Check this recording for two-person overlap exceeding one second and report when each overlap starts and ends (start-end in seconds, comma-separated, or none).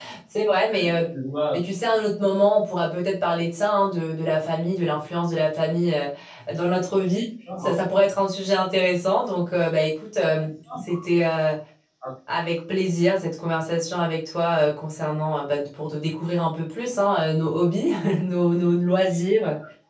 none